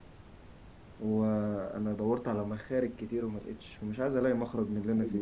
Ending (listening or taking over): taking over